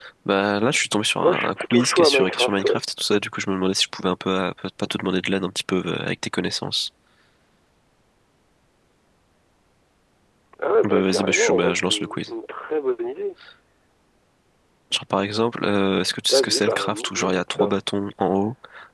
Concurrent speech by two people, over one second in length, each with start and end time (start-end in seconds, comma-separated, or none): 1.2-2.8, 10.8-12.3, 16.3-17.8